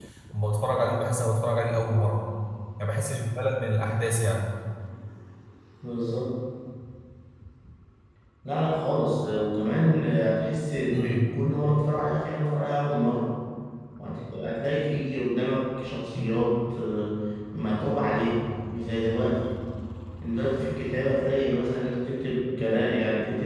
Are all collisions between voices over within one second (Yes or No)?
Yes